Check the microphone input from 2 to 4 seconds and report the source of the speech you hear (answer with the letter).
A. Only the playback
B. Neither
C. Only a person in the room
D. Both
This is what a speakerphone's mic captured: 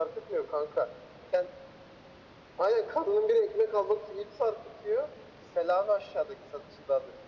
A